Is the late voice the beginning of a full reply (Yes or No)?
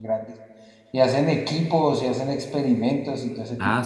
Yes